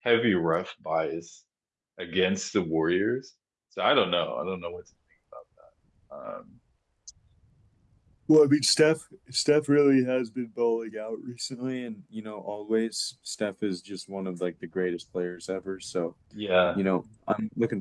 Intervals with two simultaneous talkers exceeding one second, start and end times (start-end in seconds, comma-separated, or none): none